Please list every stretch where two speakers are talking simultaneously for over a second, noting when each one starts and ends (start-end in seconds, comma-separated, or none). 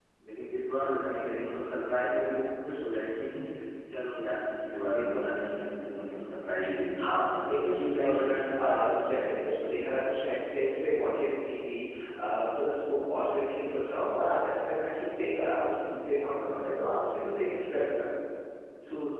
7.6-9.3